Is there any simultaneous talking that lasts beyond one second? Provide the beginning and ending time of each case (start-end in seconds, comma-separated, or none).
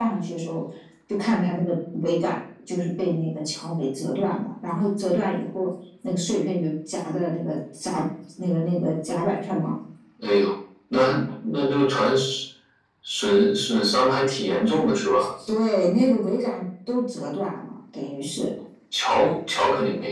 none